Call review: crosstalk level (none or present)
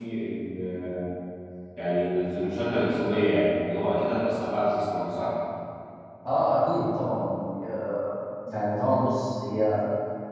none